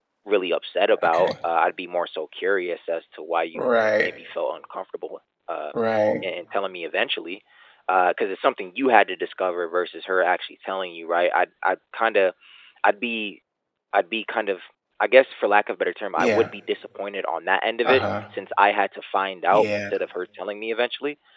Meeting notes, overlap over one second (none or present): none